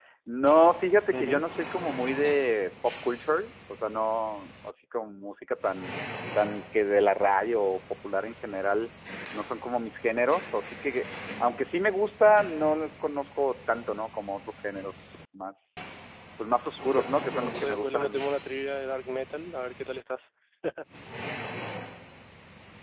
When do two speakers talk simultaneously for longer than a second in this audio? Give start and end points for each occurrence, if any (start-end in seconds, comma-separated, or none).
16.7-18.3